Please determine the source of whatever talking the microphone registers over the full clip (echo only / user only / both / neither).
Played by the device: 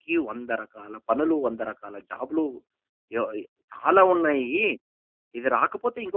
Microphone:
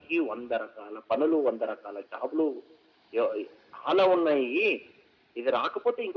echo only